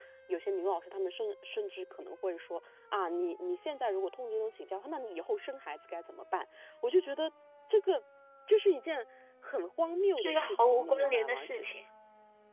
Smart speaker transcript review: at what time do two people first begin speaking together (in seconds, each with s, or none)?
10.2 s